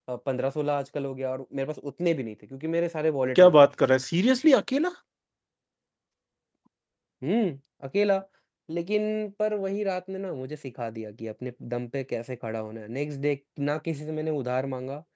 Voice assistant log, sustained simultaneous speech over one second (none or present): none